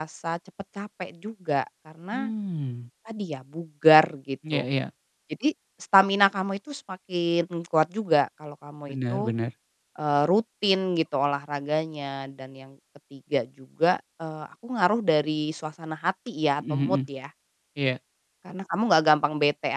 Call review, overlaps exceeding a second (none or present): none